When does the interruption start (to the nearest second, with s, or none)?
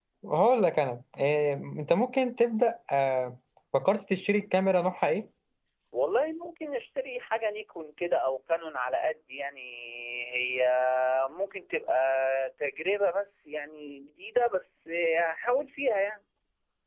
none